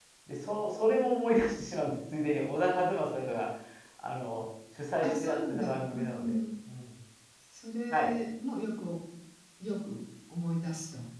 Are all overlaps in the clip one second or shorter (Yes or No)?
No